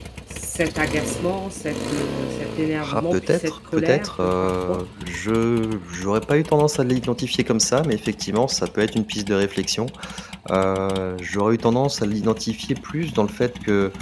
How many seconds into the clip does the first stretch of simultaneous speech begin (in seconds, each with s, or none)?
2.8 s